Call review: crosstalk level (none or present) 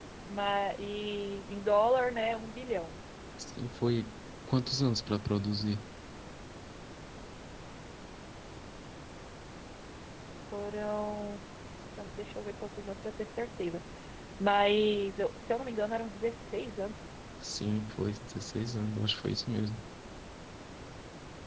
none